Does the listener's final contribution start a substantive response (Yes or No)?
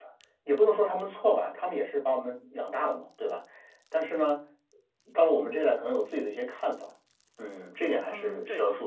Yes